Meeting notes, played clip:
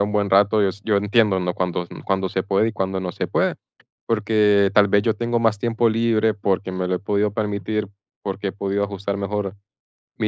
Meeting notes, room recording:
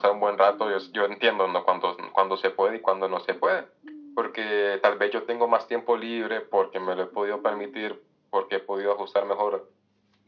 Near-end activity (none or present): none